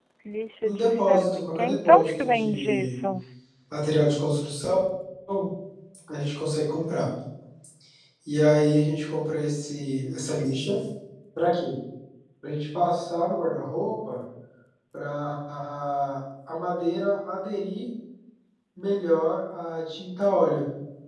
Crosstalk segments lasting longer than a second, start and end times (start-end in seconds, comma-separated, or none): 0.6-2.9